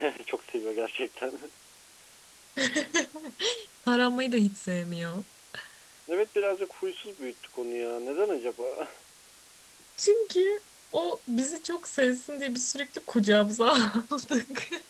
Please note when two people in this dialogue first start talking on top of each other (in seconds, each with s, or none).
none